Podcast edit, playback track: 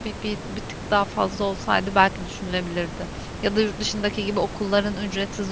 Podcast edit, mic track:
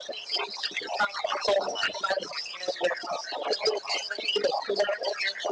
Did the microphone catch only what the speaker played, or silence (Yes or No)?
Yes